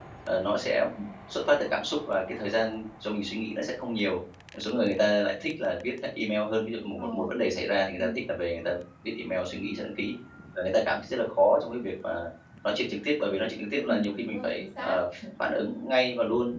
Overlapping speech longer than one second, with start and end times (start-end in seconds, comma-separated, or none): 13.7-15.0